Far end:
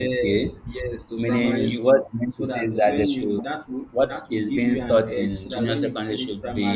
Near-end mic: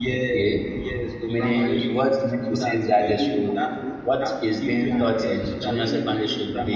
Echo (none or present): present